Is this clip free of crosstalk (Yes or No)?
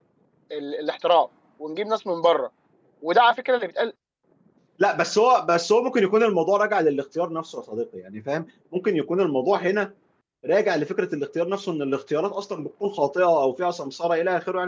Yes